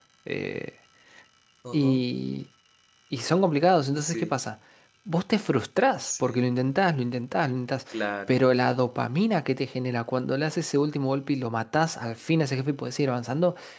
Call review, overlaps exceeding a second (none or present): none